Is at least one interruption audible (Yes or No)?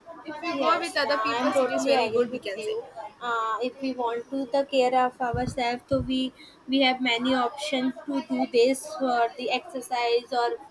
Yes